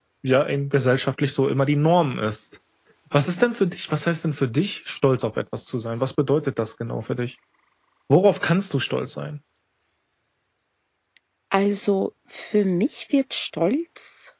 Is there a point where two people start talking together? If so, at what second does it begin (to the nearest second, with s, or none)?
none